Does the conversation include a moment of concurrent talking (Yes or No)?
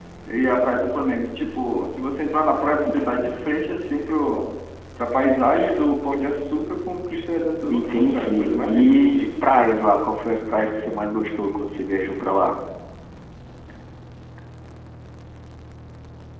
Yes